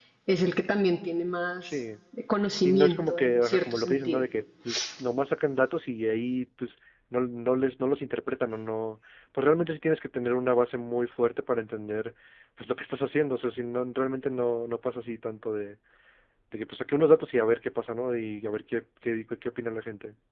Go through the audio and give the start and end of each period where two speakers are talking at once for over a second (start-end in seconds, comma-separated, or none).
2.6-4.2